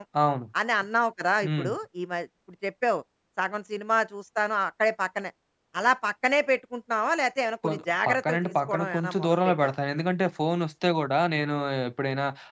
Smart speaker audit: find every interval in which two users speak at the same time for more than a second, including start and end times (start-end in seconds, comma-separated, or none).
8.1-9.7